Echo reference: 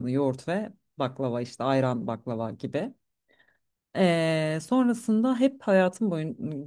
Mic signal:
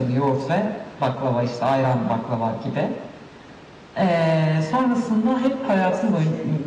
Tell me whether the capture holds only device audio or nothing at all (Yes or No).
No